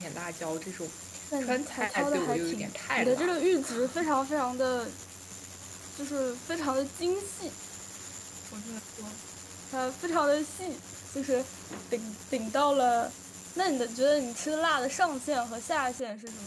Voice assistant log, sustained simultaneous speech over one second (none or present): present